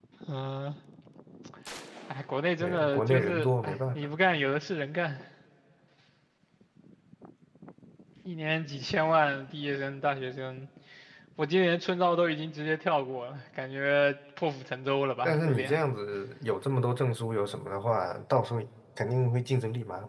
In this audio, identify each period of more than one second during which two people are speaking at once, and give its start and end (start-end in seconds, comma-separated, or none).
2.6-4.1